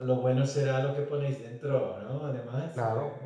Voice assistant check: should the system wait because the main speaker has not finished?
No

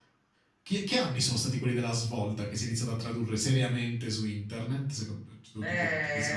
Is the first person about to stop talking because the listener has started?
Yes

